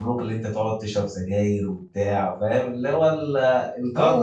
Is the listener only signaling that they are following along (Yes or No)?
No